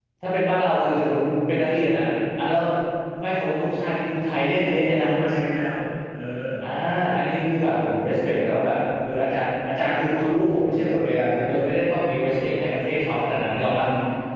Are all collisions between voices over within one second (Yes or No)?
Yes